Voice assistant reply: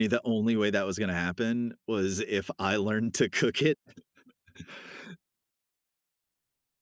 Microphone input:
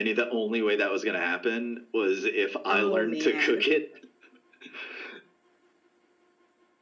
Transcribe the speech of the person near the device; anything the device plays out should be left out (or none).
Oh, man.